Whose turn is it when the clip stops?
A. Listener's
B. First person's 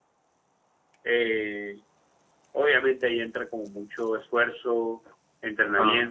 B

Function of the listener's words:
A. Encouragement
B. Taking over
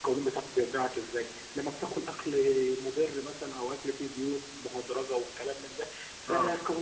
A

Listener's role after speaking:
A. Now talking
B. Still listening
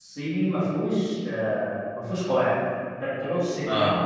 B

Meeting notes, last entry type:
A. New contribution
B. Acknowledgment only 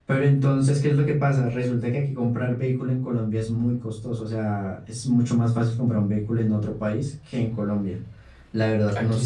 A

